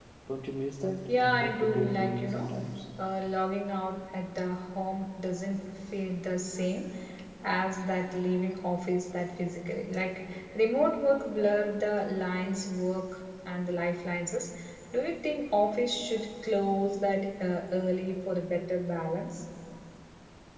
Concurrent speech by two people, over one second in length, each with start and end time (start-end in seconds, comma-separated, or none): 1.1-2.5